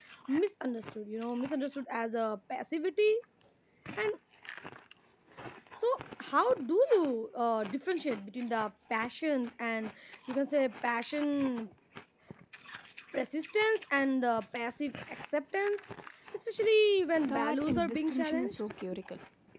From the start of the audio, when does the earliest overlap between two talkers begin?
17 s

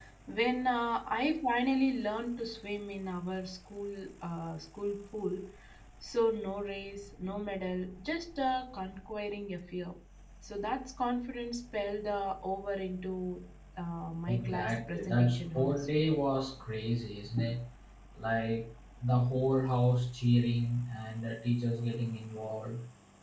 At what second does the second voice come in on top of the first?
14 s

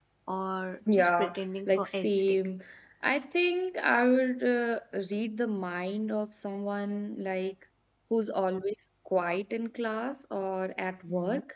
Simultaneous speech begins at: 1 s

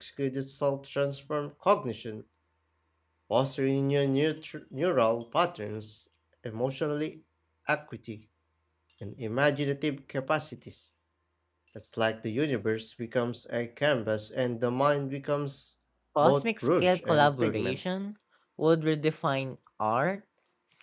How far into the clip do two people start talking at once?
16 s

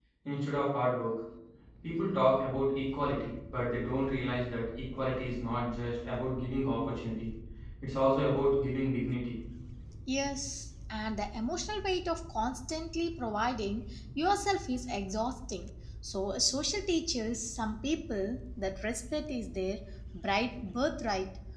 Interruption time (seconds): none

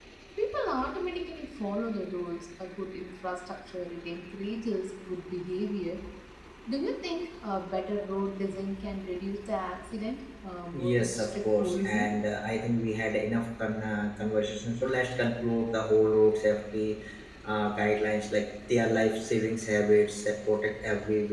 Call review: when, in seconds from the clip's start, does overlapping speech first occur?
11 s

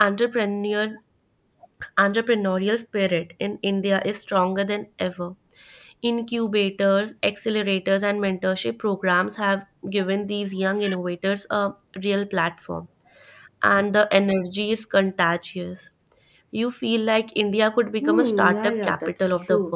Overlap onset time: 18 s

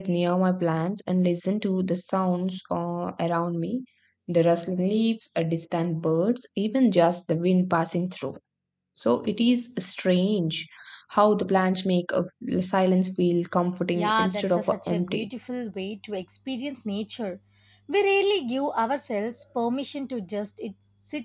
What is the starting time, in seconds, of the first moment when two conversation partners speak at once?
14 s

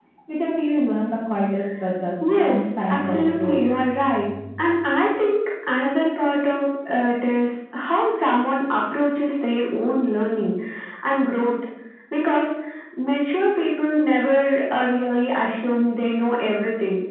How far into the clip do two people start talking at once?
2 s

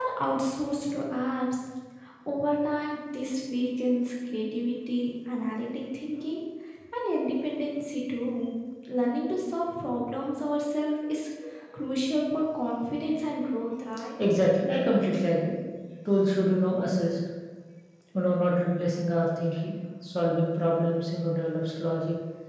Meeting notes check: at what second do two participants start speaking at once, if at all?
none

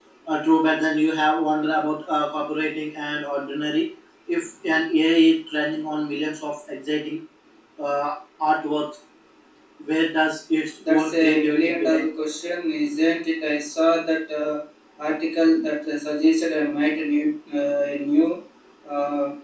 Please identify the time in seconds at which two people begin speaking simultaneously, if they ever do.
11 s

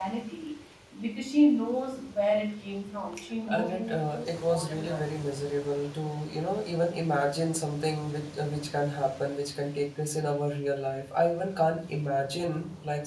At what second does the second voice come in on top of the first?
3 s

